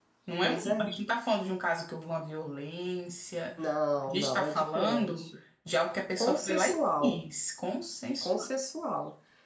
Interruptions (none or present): present